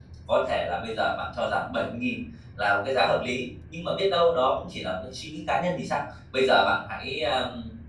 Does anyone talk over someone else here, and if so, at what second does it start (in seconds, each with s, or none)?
none